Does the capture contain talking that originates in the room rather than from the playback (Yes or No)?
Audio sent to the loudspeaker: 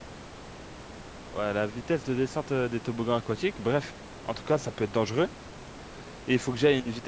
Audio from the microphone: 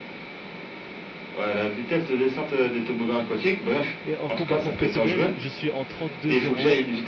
Yes